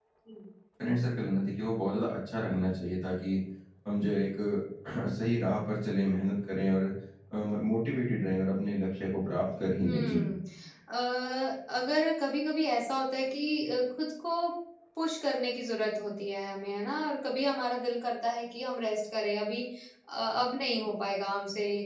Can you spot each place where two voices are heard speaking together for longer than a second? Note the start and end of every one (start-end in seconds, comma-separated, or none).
none